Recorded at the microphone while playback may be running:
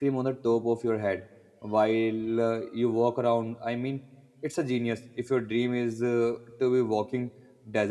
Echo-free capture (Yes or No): Yes